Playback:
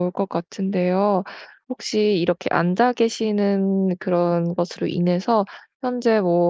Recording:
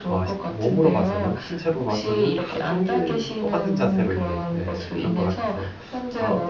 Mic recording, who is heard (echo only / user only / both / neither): both